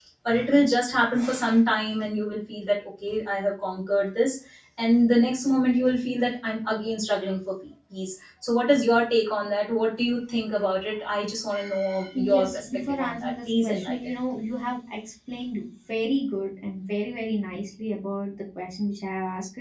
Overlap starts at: 12.2 s

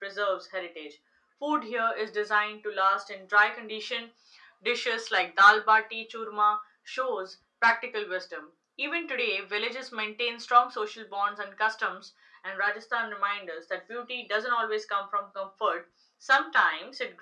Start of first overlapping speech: none

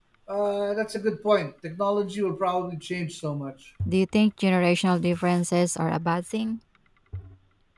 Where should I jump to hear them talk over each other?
none

